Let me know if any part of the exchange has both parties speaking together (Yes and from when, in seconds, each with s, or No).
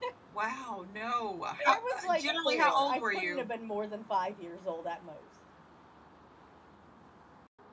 Yes, from 1.7 s